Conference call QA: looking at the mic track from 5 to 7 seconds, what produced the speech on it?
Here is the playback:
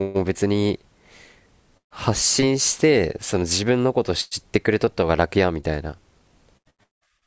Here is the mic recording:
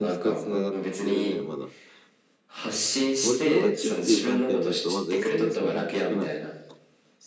both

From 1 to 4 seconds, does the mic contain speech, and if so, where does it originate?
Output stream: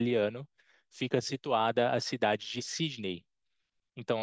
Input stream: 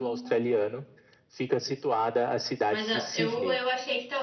both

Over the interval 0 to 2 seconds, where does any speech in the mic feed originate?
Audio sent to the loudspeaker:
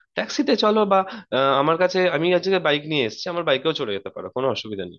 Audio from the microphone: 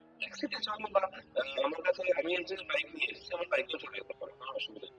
echo only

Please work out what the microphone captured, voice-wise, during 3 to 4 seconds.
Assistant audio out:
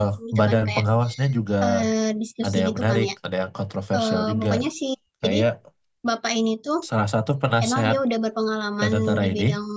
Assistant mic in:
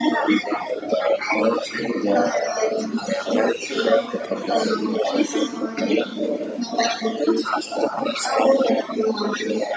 both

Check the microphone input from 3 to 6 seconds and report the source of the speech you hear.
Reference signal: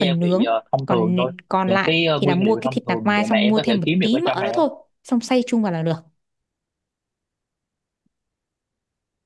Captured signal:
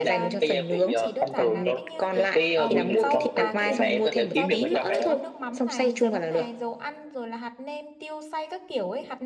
both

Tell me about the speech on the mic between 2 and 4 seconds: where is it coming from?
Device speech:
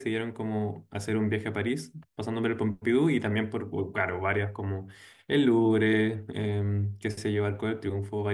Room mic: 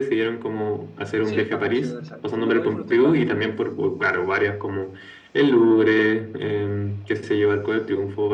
both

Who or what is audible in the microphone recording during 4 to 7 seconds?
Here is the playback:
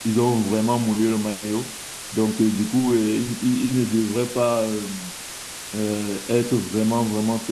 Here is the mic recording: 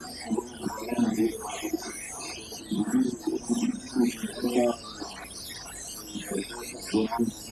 echo only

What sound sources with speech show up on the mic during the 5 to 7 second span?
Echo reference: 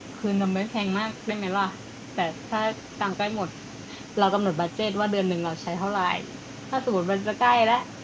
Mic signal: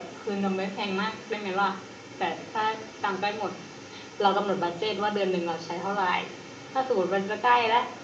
echo only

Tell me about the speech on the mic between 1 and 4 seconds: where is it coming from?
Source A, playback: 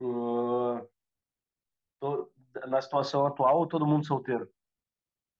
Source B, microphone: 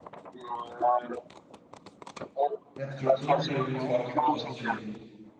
both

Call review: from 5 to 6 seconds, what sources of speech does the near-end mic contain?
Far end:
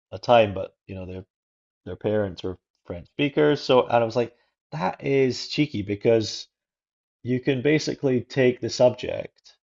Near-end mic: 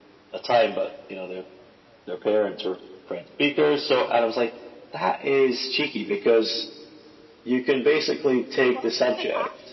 echo only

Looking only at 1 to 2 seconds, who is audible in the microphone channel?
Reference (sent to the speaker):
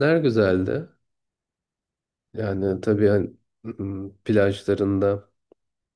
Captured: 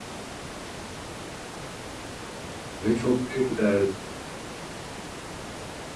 neither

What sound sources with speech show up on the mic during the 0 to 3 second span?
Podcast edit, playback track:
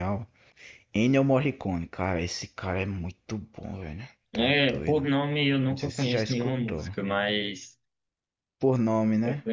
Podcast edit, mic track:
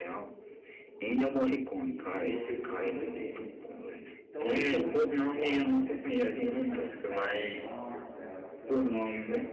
both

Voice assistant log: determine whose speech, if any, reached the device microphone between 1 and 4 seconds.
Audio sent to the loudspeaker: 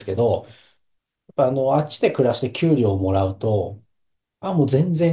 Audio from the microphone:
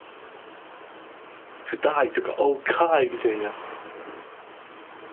user only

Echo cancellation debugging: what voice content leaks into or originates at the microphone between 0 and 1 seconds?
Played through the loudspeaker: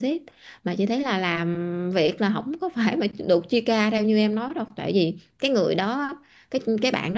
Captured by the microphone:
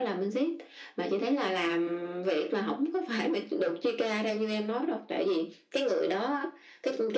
echo only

